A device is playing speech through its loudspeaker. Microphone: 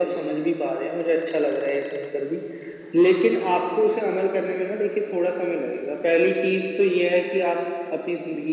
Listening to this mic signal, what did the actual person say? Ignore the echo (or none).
none